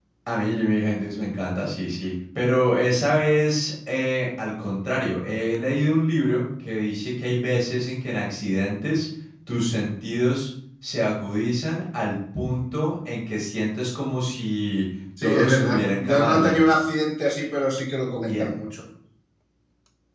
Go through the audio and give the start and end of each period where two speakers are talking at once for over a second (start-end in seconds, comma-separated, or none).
15.2-16.7